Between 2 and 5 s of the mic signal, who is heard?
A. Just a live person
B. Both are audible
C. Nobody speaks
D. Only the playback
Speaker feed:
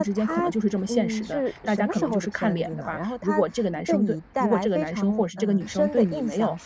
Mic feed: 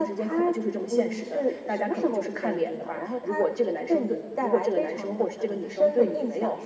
D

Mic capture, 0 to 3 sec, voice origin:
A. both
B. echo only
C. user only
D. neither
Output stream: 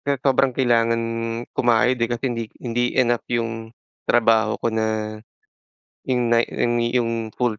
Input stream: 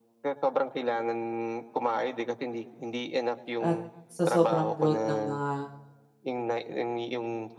B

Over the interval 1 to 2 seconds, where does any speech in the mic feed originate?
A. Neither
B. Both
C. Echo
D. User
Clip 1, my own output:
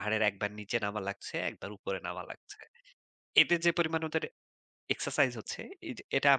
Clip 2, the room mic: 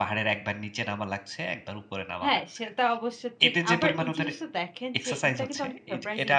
C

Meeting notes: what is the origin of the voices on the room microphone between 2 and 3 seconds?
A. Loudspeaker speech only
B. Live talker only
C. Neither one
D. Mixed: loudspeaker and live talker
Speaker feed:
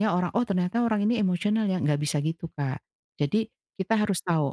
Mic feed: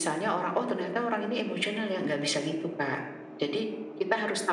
A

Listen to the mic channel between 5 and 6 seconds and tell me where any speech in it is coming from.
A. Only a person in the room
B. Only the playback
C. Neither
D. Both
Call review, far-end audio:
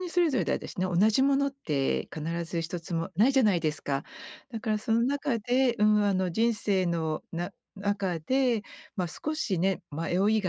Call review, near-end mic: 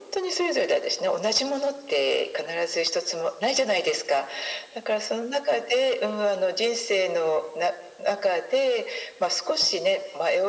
B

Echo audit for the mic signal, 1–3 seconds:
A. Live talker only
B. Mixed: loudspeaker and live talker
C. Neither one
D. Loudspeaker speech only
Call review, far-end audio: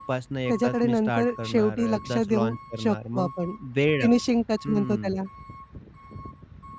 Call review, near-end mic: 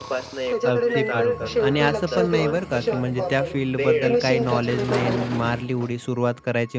B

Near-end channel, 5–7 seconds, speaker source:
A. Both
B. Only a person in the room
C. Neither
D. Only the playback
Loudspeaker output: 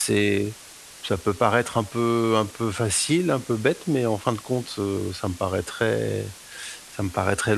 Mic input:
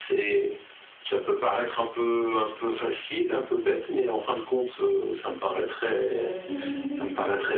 A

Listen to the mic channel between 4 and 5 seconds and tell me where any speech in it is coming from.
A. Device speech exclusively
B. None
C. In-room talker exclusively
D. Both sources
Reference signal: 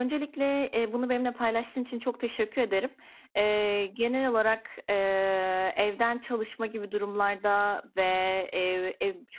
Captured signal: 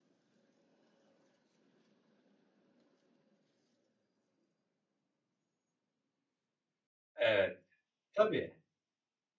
B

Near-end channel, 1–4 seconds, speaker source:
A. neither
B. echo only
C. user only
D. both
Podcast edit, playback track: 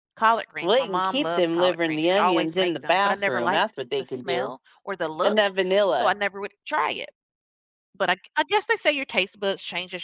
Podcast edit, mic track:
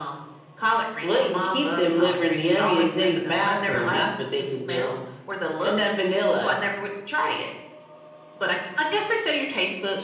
B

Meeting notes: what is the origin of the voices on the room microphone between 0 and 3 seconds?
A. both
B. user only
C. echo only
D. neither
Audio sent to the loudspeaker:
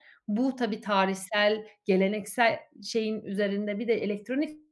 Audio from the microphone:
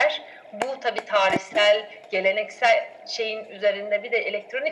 C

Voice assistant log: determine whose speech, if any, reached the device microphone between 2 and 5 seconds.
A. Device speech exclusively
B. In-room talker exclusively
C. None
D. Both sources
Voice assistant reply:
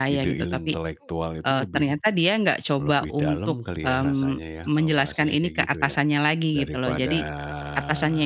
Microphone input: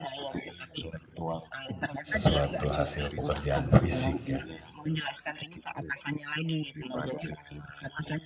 D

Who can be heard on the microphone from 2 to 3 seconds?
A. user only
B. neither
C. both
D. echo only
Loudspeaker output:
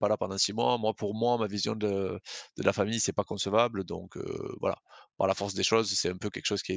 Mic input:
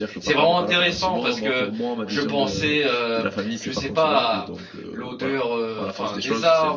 C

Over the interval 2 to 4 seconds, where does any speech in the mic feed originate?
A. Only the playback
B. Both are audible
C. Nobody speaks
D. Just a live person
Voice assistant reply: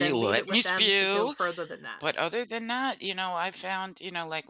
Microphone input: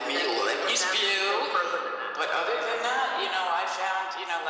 A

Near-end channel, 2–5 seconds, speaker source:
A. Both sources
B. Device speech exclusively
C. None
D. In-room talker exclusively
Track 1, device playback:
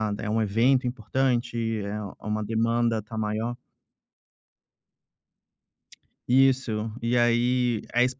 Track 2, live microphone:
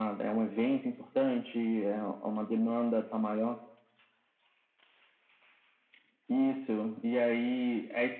B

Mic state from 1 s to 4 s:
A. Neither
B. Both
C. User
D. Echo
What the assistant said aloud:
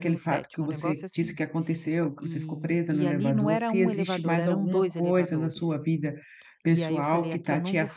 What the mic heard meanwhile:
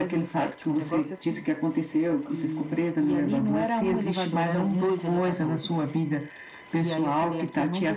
D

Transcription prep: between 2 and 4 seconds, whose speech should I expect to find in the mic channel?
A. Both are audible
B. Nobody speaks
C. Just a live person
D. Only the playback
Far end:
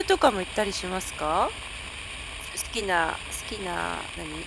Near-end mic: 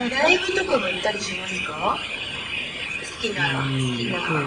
A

